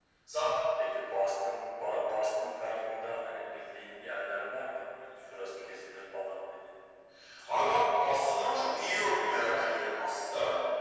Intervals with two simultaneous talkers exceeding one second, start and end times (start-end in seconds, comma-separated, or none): none